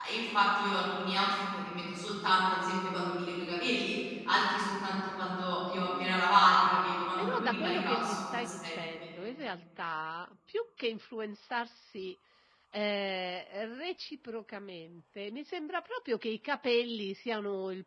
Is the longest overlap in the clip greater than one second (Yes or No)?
Yes